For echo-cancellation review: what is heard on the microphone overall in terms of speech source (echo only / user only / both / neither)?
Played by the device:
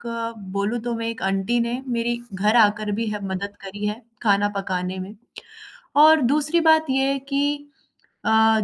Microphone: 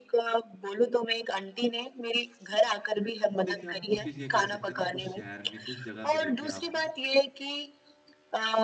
both